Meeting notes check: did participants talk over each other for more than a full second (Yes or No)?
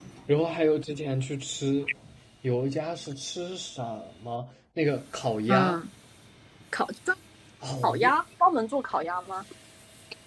No